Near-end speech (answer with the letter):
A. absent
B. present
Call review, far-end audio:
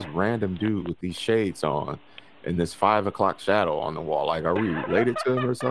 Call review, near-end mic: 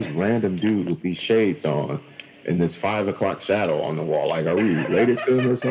A